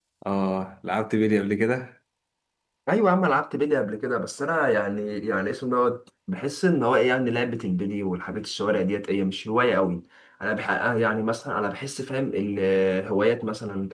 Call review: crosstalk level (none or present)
none